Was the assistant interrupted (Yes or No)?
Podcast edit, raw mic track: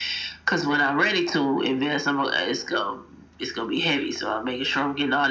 No